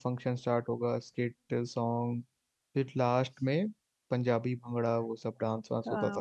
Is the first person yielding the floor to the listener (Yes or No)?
Yes